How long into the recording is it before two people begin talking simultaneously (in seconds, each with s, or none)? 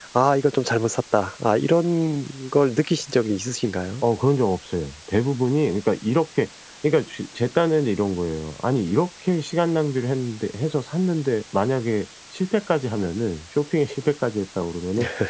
none